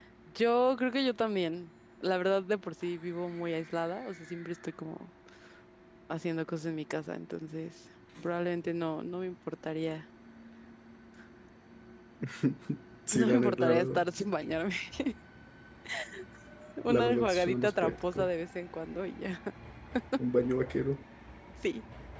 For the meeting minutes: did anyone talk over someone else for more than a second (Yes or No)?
Yes